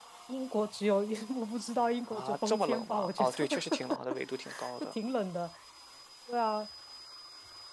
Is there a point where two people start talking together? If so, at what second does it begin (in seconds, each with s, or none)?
2.1 s